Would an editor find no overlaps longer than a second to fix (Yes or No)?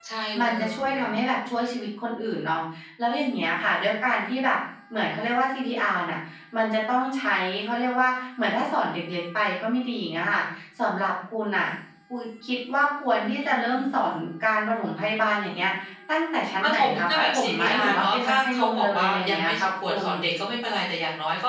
No